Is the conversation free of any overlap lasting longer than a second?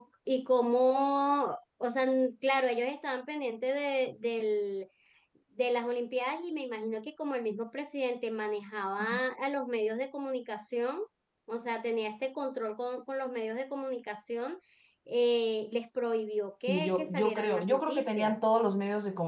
No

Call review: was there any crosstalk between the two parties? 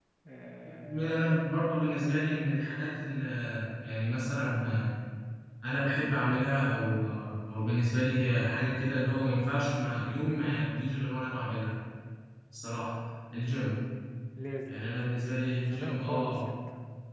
Yes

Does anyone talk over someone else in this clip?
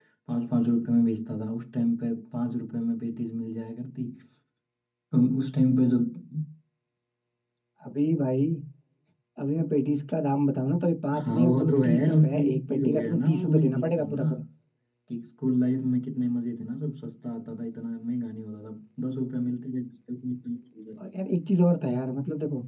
Yes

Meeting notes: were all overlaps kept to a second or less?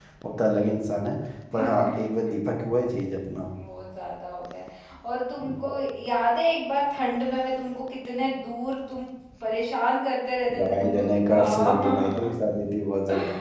No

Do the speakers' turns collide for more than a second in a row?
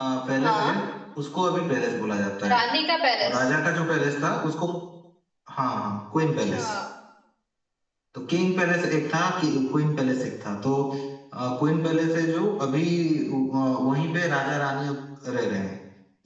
No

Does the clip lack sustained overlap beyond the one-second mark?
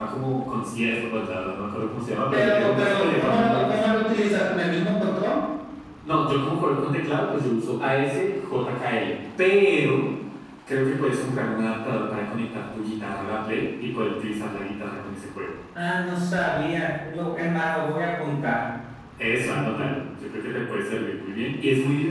No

